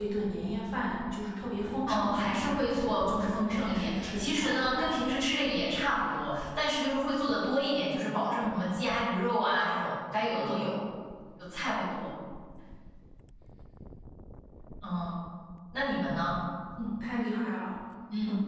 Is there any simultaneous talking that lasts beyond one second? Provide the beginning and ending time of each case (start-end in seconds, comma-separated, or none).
1.9-4.9